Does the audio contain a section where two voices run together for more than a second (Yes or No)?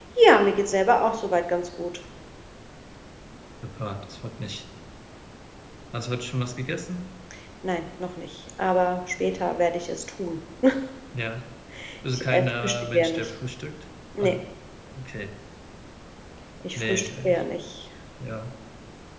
Yes